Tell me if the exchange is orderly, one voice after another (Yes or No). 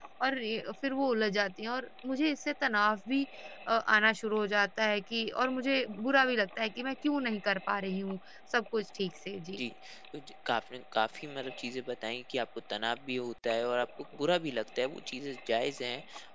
Yes